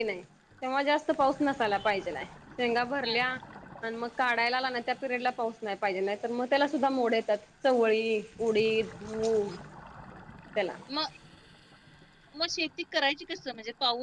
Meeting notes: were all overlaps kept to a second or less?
Yes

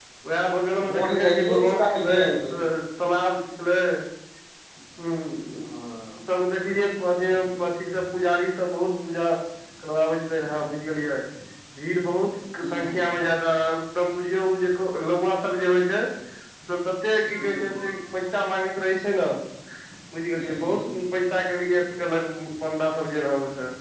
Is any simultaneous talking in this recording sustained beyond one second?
Yes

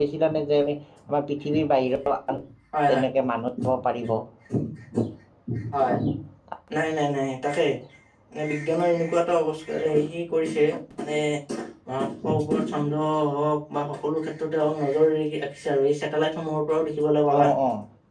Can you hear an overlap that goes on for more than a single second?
No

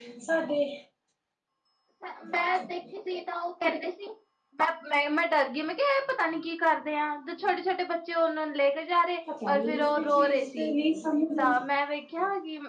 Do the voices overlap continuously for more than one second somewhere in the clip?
Yes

